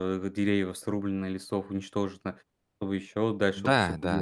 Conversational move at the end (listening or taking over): taking over